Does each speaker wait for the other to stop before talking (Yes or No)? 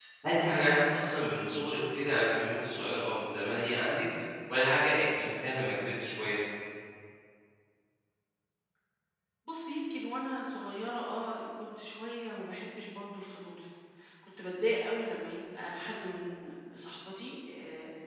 Yes